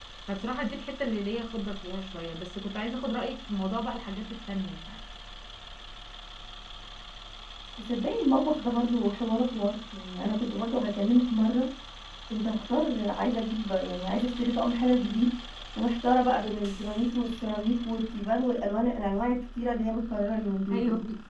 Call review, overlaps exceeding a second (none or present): none